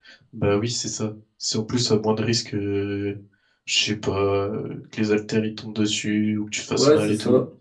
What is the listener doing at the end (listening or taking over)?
taking over